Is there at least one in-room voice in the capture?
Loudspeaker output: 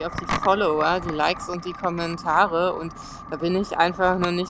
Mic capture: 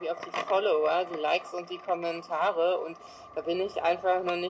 No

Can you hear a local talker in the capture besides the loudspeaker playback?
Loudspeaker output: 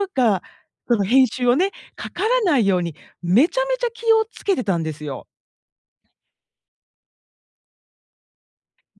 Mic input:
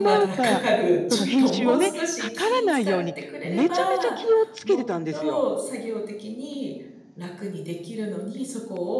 Yes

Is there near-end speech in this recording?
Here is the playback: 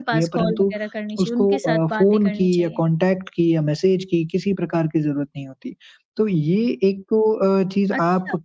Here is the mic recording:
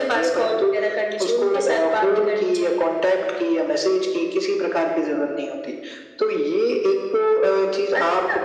No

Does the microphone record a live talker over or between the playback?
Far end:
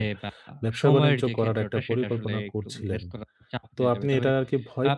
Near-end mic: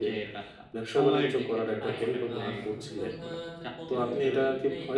Yes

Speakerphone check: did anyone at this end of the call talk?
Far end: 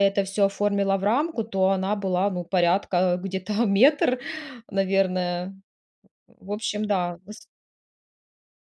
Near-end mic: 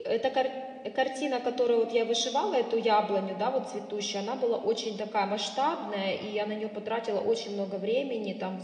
Yes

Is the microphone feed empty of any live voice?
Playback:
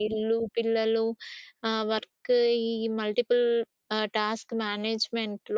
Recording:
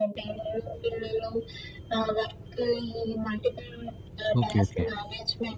No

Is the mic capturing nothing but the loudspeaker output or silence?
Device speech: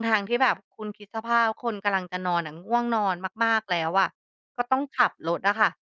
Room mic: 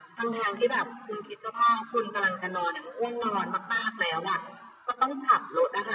Yes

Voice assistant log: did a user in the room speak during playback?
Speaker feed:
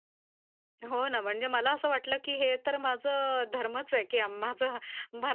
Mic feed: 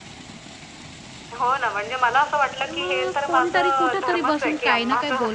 Yes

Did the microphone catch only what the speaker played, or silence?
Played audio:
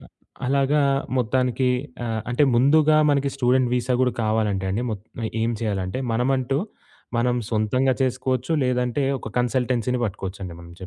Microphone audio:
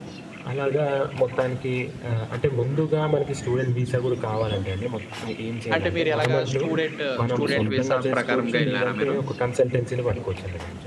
No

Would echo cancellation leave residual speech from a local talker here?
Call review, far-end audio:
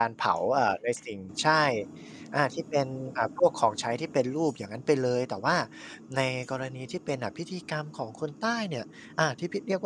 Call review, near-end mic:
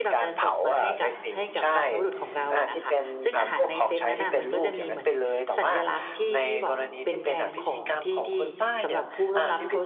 Yes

